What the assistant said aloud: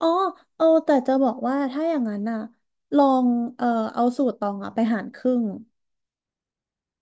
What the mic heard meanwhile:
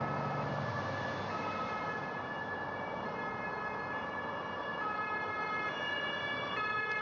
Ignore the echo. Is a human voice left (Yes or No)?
No